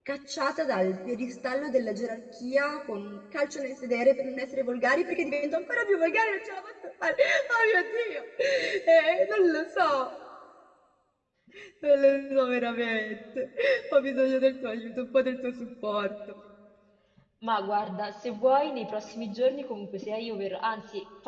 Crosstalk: none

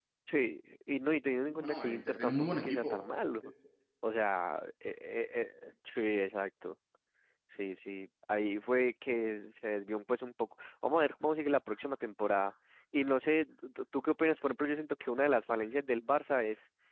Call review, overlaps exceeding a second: present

